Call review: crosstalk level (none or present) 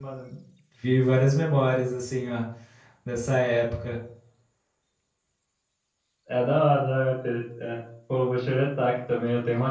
none